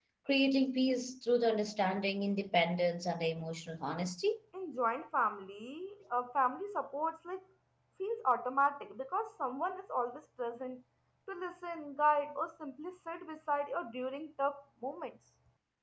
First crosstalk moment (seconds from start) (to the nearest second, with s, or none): none